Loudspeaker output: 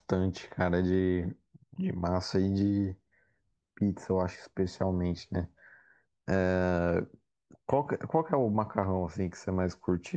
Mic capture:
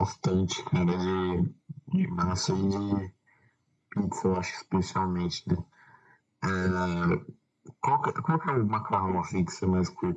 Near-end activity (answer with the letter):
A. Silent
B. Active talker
A